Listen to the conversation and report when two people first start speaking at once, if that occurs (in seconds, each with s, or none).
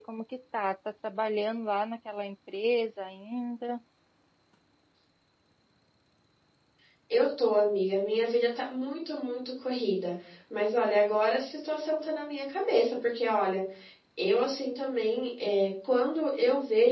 none